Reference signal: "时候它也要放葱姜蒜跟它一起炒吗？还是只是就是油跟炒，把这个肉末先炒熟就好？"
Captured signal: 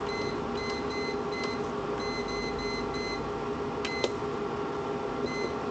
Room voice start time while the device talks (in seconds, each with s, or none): none